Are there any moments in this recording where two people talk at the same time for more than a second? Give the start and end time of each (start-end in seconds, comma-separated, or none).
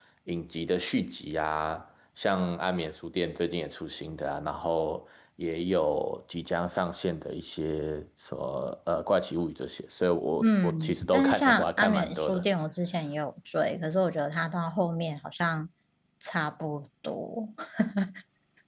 10.4-12.4